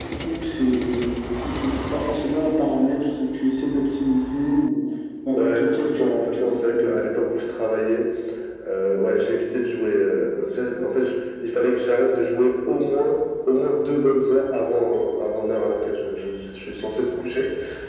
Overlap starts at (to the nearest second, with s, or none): 5 s